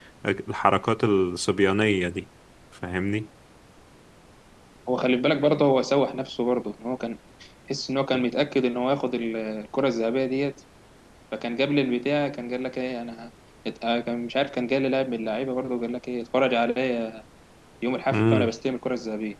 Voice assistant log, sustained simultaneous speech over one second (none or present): none